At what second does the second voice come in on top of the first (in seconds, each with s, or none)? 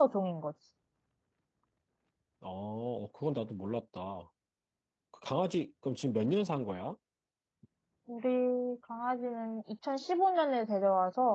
none